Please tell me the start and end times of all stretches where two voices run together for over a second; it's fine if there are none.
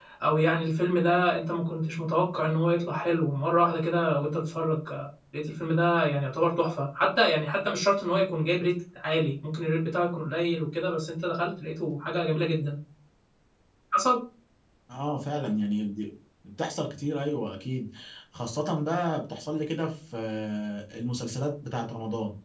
none

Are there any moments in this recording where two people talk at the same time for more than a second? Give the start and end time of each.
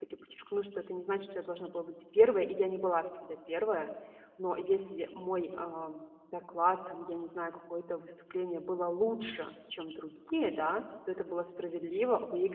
none

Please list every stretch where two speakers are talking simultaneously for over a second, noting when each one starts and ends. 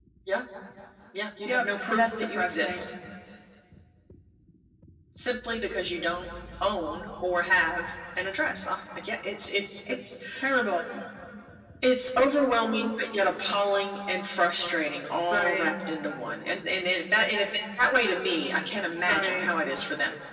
1.4-2.9

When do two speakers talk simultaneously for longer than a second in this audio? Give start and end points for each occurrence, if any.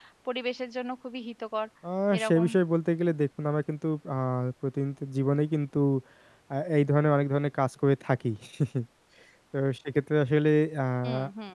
none

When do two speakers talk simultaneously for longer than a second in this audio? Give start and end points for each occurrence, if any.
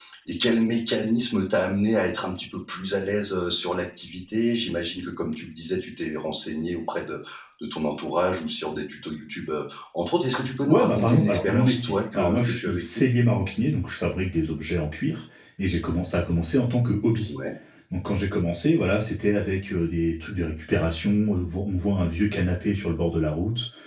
10.7-13.0

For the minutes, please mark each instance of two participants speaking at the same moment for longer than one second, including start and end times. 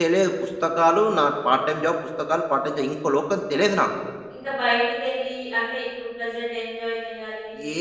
none

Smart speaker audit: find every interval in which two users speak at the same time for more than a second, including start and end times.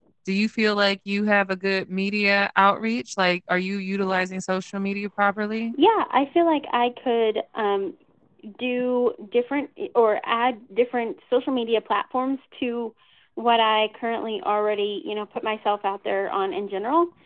none

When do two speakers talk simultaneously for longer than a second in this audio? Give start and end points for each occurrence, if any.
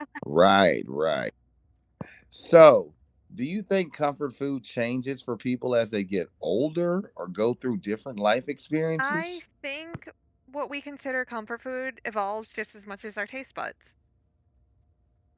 none

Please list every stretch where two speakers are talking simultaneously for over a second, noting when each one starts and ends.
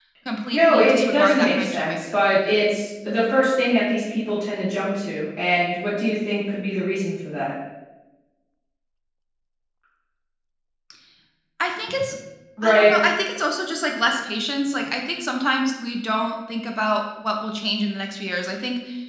0.5-2.2

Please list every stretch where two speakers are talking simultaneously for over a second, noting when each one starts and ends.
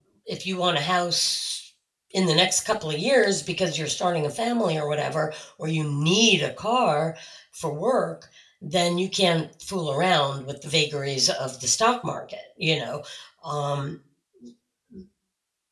none

